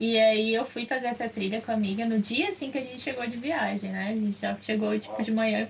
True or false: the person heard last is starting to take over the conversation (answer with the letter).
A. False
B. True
A